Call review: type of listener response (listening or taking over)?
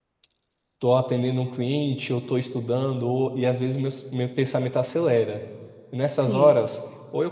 listening